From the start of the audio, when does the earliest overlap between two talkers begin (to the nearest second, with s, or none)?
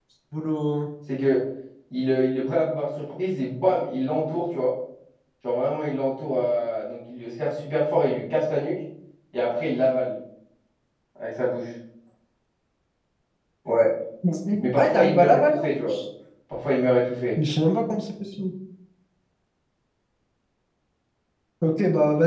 15 s